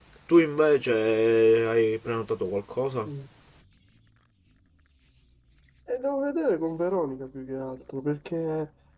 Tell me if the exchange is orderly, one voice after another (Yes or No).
Yes